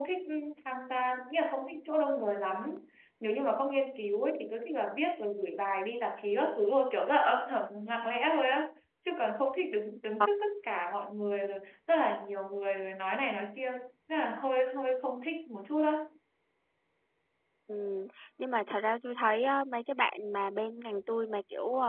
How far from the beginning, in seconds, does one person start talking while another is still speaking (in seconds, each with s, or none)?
none